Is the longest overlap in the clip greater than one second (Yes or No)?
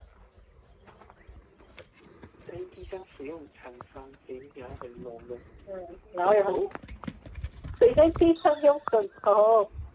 No